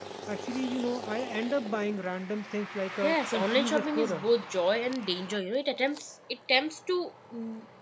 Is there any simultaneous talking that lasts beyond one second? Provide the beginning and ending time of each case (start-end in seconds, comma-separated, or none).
3.0-4.3